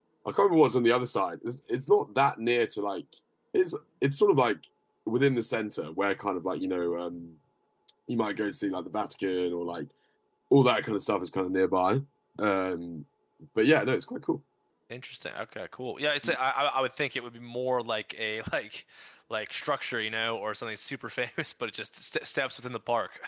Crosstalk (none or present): none